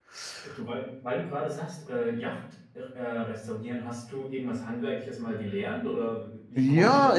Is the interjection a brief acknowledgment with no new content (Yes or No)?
No